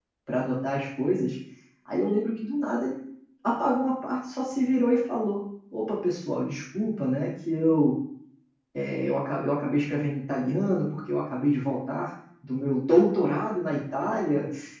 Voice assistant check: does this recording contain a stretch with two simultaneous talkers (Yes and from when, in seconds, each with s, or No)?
No